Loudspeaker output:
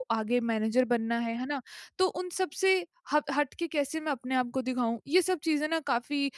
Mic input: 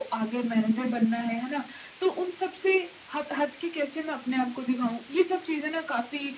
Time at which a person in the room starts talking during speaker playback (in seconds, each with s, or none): none